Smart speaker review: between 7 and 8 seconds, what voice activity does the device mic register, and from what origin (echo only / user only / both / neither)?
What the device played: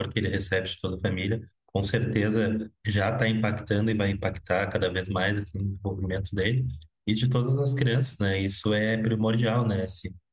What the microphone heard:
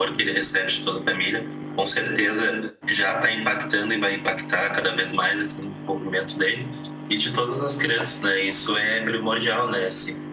echo only